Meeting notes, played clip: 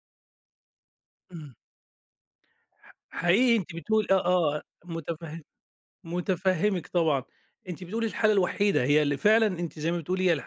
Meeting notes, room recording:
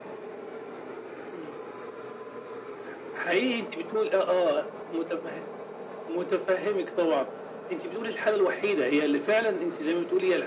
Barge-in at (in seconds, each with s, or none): none